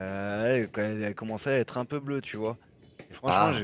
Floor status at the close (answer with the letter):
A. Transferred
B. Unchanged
B